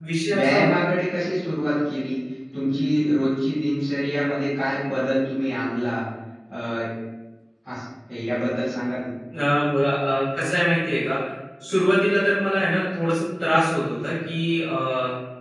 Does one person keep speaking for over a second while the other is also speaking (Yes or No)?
No